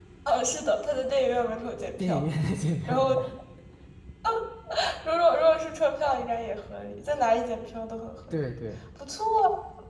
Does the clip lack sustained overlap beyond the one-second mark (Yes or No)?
Yes